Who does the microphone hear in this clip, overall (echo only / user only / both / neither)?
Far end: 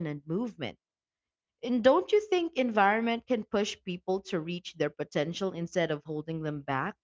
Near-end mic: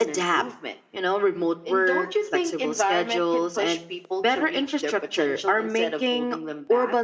both